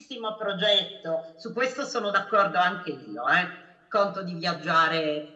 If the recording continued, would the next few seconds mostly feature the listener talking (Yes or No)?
No